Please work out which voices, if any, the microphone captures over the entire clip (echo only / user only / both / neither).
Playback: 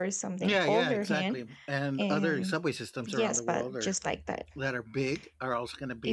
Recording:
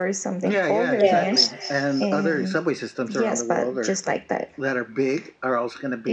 both